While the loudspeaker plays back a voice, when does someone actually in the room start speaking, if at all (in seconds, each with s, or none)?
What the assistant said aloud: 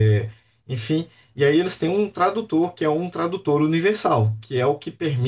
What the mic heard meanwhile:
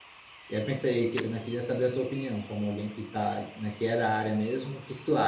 0.5 s